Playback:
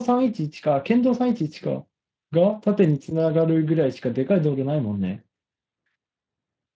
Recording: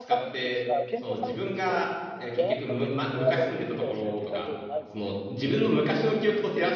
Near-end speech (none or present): present